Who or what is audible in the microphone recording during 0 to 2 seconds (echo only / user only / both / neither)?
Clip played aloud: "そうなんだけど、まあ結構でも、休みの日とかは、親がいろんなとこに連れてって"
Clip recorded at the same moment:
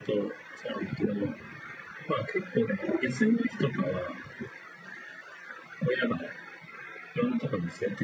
echo only